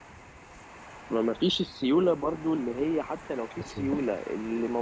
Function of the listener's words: listening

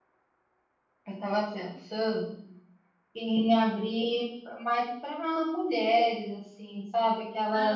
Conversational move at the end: listening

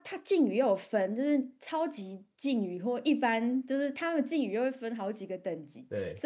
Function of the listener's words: listening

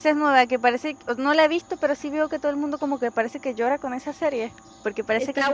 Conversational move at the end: taking over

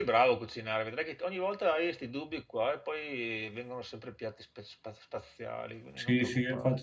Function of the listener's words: taking over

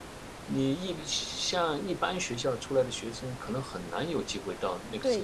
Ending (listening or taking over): taking over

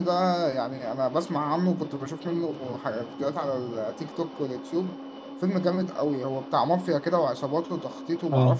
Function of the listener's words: listening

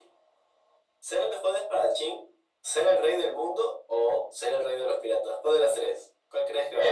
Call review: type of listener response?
taking over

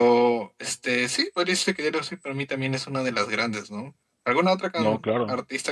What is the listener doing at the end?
listening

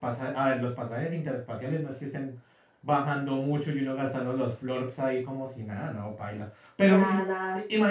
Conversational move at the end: listening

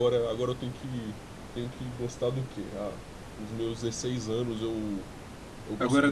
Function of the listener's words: listening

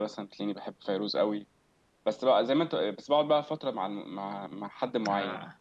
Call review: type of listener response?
listening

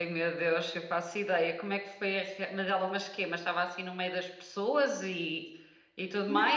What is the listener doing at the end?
taking over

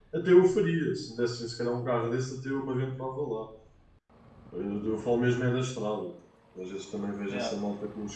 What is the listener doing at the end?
listening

